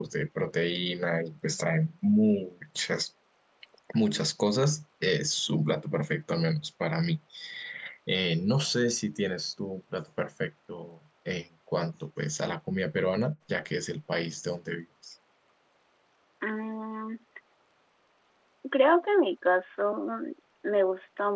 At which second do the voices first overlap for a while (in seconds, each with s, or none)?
none